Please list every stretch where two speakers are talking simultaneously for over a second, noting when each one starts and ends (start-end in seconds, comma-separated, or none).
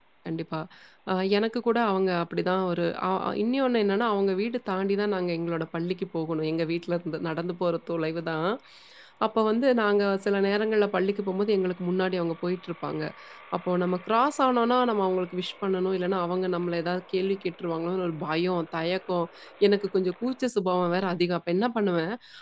none